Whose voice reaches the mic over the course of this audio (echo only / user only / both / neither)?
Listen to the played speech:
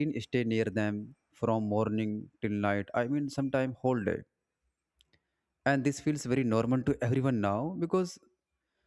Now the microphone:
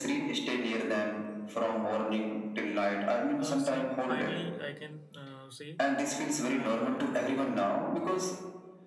both